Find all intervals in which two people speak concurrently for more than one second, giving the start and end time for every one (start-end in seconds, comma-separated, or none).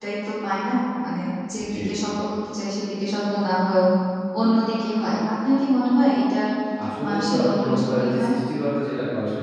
7.1-8.3